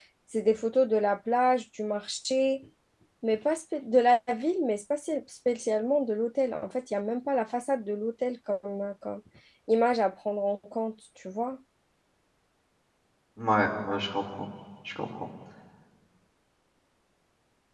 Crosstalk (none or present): none